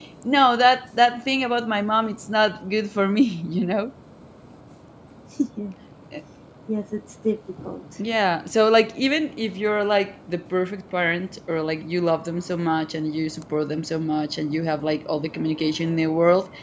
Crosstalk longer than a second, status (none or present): none